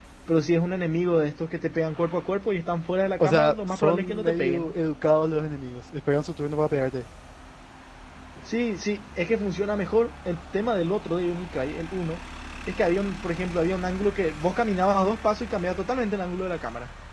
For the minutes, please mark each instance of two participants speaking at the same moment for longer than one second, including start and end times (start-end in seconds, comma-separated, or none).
3.2-4.7